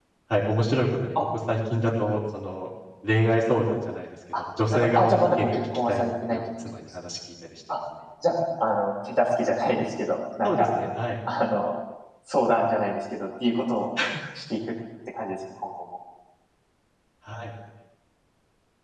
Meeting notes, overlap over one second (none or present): present